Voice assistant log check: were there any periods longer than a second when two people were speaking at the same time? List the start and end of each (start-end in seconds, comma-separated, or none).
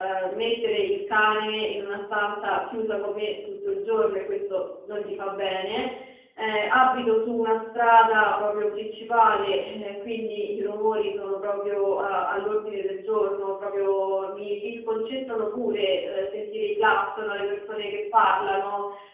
none